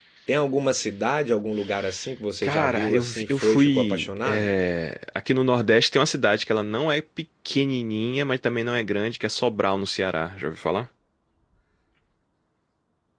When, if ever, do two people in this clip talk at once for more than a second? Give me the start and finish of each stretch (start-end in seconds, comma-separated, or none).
2.4-4.5